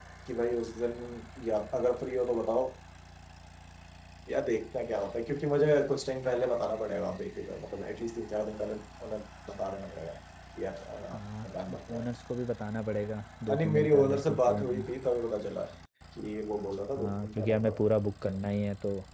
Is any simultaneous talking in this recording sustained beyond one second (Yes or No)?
Yes